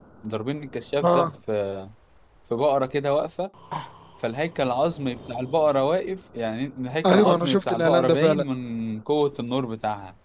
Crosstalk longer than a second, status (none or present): present